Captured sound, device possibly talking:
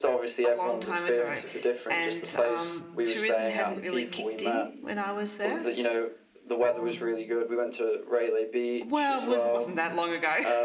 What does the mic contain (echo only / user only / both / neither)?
both